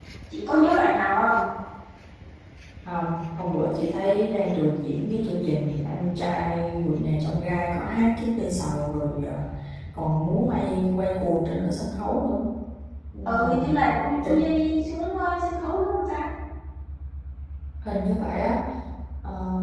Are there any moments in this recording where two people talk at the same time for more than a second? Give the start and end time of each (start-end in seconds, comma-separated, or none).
none